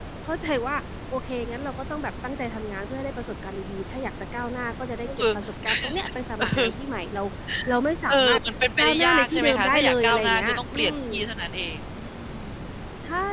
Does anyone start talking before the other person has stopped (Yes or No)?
Yes